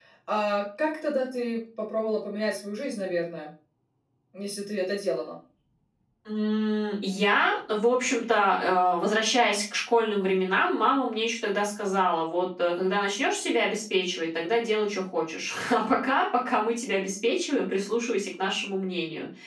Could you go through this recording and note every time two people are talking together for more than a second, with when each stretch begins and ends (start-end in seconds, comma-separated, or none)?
none